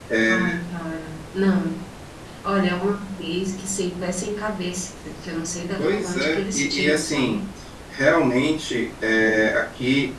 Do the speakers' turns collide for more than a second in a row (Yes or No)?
Yes